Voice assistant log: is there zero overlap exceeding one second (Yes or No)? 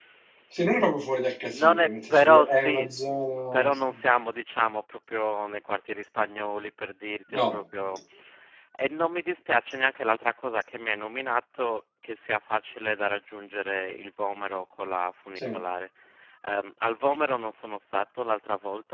No